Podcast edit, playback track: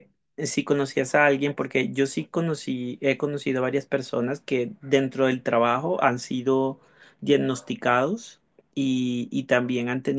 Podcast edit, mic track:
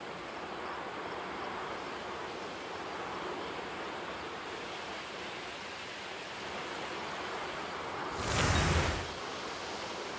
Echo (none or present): none